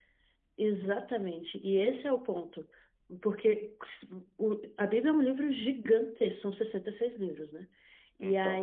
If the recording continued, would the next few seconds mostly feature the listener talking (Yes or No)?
No